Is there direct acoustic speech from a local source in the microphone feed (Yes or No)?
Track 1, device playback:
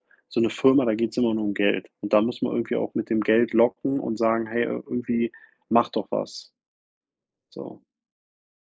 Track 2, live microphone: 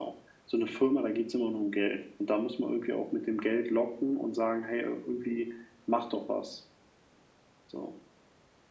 No